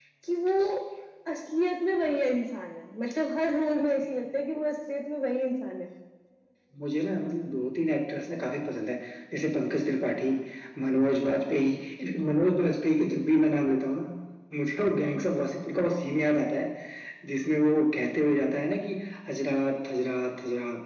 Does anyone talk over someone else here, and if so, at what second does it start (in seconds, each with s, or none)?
none